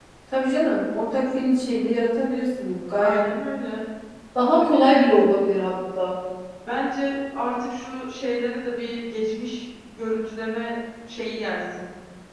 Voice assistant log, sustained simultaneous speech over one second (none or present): none